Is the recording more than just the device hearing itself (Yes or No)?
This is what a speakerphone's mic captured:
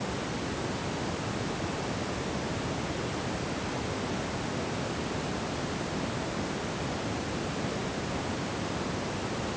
No